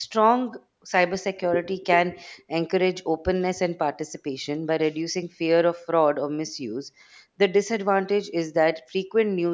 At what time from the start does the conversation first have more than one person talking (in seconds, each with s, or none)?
none